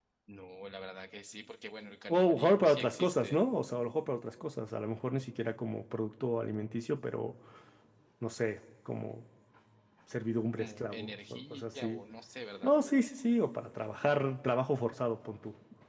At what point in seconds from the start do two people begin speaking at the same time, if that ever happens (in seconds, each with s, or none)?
2.1 s